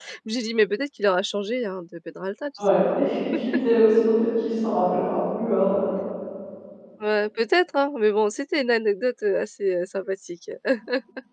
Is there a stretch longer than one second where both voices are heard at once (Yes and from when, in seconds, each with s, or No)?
No